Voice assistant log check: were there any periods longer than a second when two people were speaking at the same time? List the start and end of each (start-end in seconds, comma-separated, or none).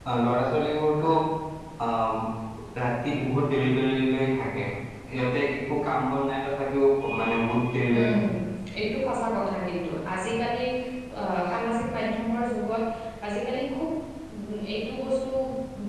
none